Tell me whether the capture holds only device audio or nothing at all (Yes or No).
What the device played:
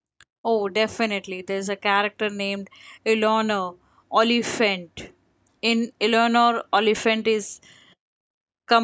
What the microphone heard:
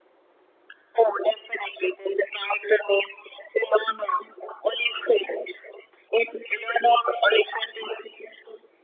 Yes